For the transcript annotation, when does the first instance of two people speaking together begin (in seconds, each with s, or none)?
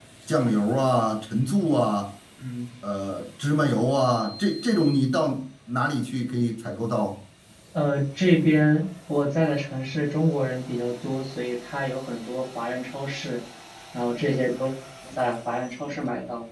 none